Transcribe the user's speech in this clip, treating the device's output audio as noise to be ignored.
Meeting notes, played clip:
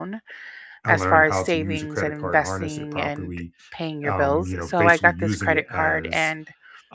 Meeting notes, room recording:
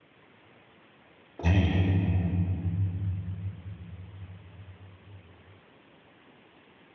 dang.

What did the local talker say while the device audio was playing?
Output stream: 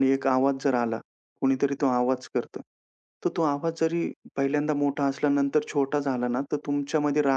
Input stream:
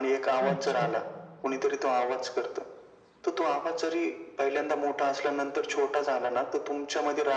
अच्छा.

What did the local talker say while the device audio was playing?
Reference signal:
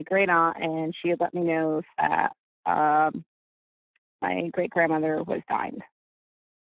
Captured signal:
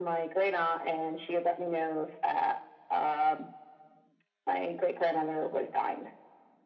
none

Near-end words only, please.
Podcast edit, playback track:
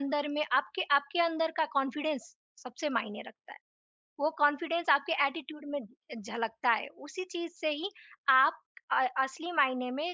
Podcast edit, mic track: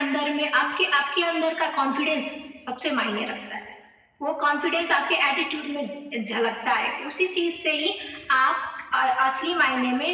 none

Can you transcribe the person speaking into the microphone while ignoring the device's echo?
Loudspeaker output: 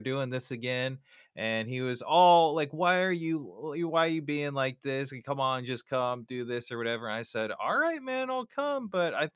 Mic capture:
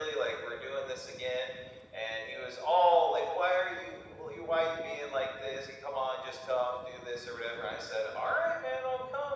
none

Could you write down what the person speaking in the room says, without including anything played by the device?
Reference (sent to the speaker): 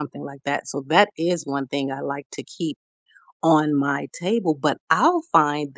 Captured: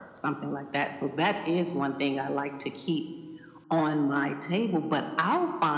none

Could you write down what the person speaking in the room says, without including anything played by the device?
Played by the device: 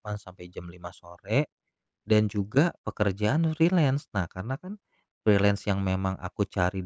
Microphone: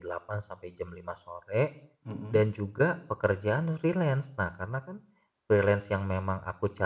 Mhm,

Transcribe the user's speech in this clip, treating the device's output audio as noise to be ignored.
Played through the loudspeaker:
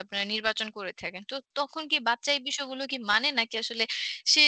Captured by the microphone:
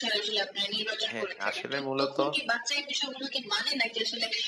হ্যাঁ আসলে মূলত

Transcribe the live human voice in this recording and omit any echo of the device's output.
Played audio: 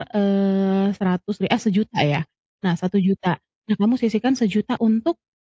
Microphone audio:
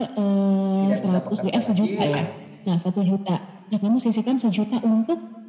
tidak bisa bekerja lagi, ad

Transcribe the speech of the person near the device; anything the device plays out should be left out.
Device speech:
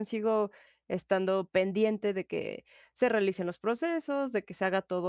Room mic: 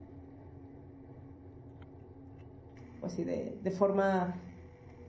pues sí, de de forma,

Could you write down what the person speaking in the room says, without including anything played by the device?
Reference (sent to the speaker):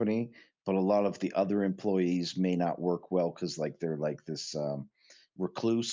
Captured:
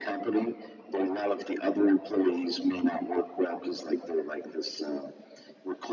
none

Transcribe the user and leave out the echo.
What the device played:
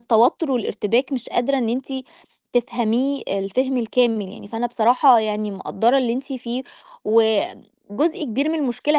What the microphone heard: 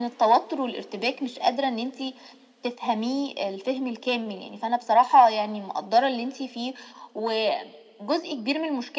none

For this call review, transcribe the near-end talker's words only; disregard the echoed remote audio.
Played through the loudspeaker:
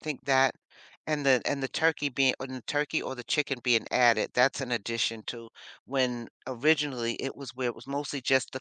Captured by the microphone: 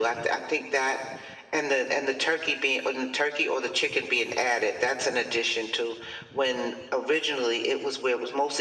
none

